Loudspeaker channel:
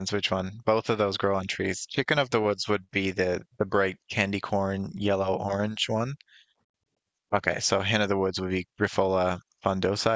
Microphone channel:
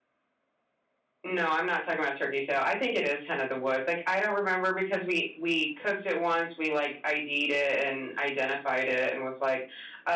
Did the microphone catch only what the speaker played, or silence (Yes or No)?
No